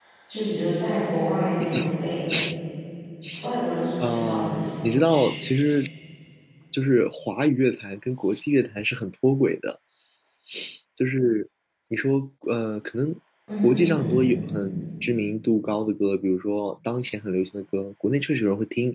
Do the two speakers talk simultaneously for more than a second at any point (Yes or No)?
Yes